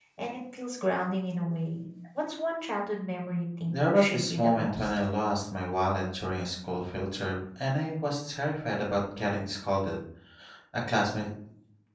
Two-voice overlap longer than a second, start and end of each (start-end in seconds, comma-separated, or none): 3.7-4.9